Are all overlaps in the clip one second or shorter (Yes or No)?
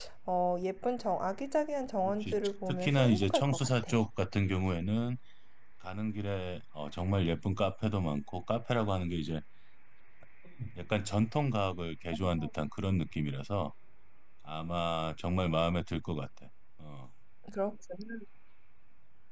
No